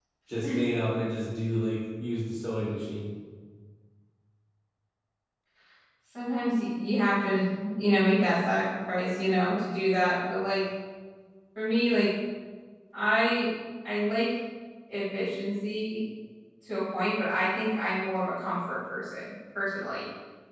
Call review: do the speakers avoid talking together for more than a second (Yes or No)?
Yes